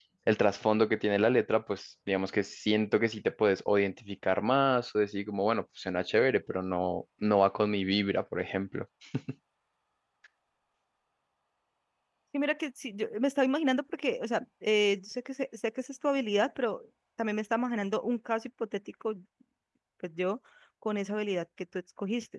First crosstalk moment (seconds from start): none

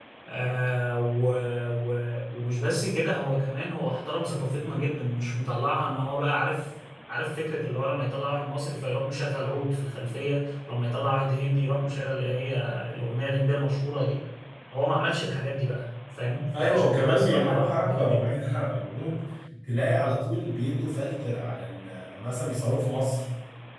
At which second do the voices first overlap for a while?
16.5 s

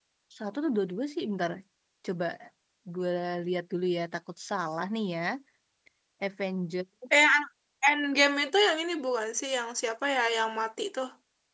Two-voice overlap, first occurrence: none

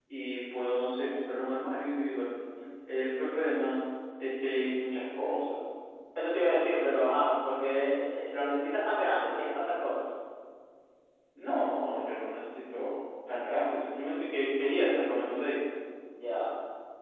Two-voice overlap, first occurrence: none

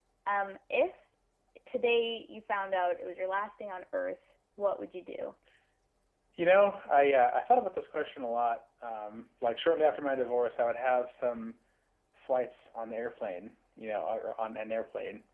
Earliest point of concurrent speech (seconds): none

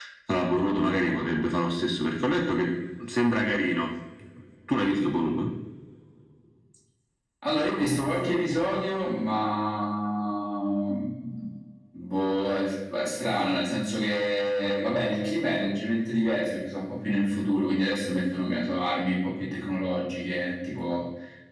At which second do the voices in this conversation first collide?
none

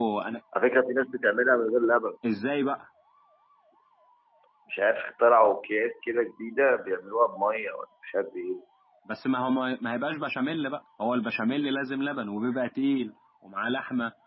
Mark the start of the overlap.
none

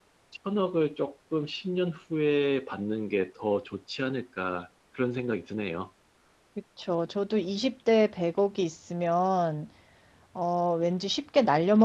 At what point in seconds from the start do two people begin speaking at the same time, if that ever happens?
none

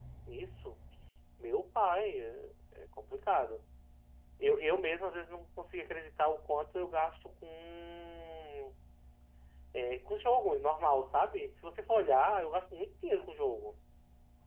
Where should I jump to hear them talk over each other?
none

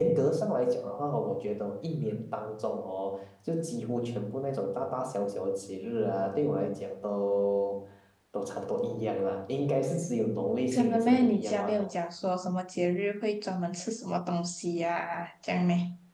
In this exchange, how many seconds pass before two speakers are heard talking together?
10.7 s

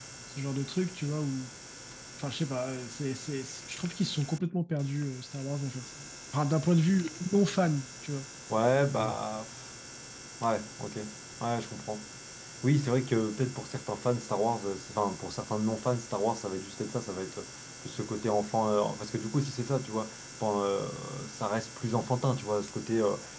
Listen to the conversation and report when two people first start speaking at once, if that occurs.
none

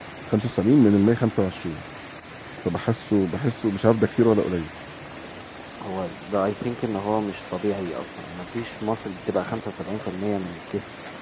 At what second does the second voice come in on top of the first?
none

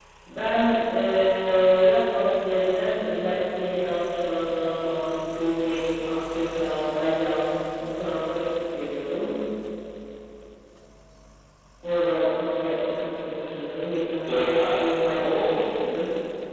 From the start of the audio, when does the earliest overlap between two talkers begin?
14.3 s

